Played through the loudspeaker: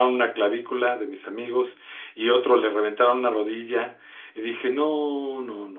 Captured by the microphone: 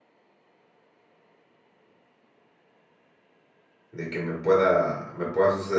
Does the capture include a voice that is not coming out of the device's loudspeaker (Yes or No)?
Yes